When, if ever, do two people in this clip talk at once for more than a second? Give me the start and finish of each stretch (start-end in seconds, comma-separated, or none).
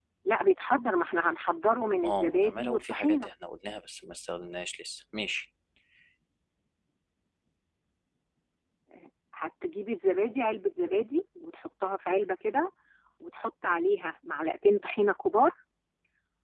2.0-3.3